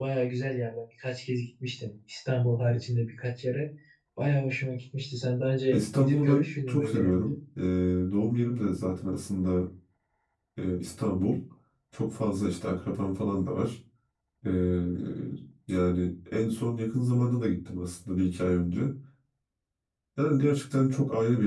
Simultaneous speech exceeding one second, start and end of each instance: 5.7-7.2

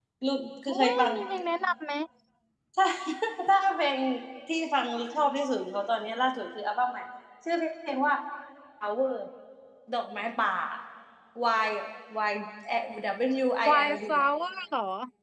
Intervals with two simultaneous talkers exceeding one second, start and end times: none

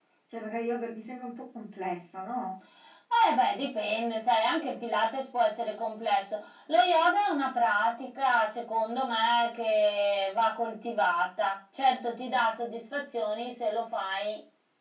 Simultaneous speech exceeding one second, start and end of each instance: none

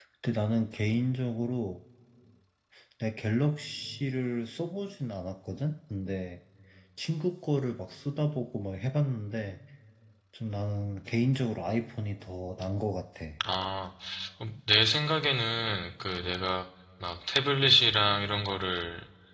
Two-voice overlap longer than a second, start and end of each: none

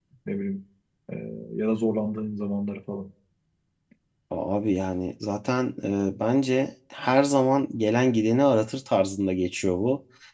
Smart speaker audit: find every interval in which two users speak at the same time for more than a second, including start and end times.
none

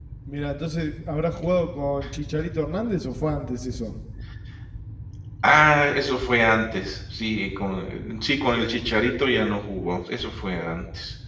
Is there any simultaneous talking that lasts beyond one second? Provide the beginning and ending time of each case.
none

